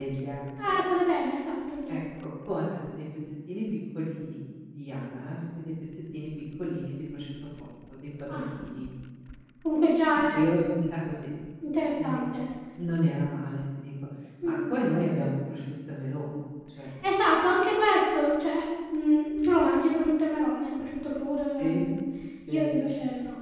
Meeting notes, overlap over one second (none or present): none